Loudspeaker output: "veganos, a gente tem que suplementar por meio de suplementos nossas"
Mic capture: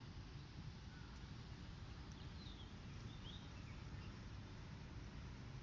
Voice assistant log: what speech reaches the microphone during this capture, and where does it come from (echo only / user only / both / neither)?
neither